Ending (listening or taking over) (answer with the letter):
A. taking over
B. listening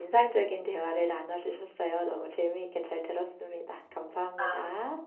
A